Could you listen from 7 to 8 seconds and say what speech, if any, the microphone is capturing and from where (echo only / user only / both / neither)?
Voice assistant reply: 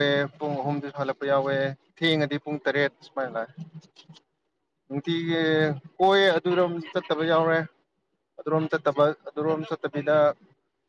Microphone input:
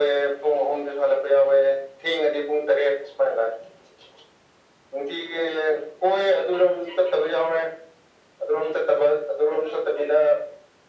echo only